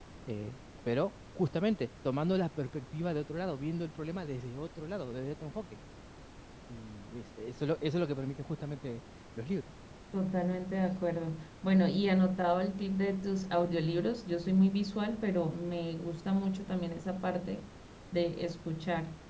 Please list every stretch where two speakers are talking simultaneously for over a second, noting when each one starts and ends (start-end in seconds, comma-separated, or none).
none